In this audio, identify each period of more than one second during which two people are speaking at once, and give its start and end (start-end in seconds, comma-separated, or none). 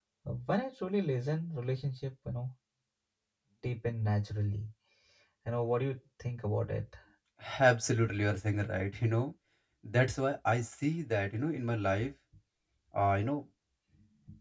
none